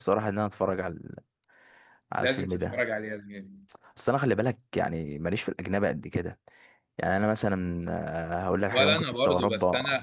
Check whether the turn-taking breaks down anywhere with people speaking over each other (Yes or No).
Yes